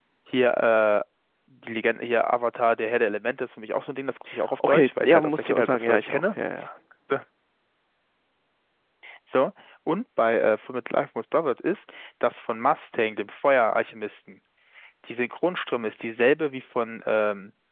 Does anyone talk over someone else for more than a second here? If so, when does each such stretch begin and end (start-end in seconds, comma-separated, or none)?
4.7-6.3